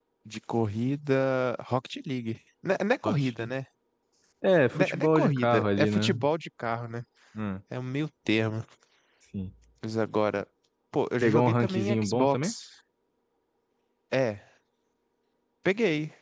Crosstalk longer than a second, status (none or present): present